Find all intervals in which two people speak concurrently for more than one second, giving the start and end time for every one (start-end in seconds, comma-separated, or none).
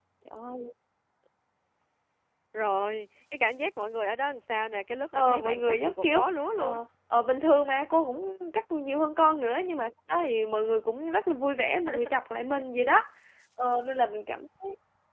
5.2-6.8